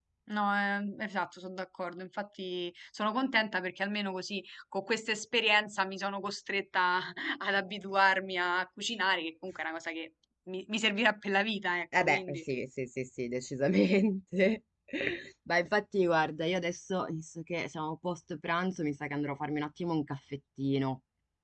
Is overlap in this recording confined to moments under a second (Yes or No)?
Yes